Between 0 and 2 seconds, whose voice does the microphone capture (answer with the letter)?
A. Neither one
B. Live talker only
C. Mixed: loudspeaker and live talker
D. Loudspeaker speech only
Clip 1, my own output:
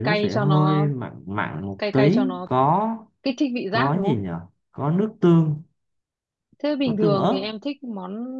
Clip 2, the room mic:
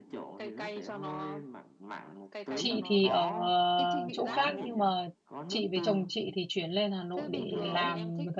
D